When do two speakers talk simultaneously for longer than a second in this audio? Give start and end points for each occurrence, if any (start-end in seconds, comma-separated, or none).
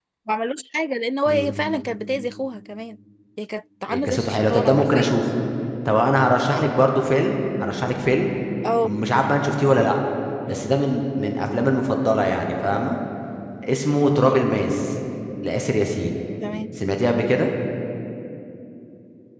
3.9-5.2